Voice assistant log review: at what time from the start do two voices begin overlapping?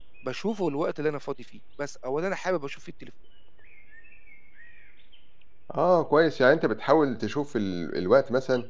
none

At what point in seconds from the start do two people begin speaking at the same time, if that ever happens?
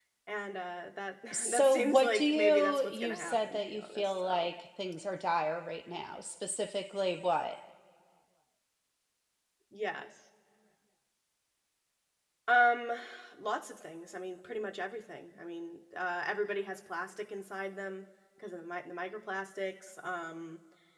1.3 s

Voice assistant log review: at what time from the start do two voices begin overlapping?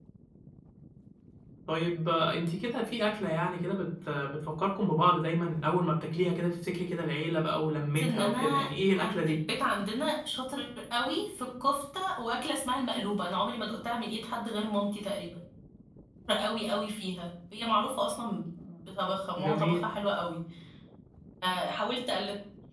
8.0 s

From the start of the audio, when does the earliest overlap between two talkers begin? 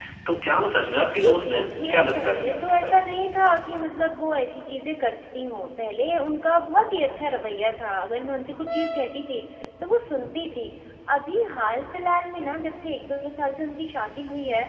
1.1 s

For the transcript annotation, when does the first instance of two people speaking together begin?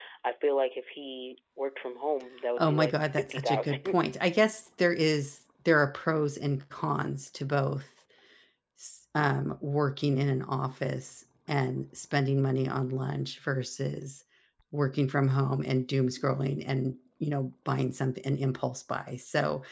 2.6 s

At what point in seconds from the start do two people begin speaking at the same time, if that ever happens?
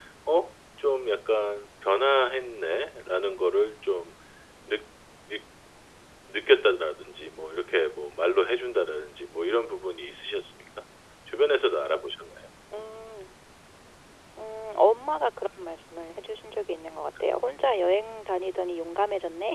none

